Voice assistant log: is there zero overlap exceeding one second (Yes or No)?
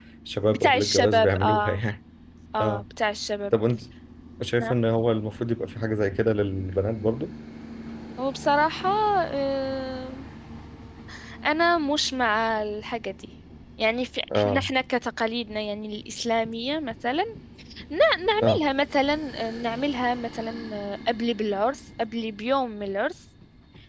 No